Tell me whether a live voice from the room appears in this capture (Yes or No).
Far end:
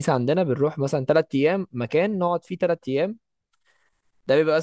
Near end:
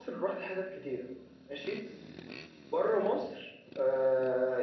Yes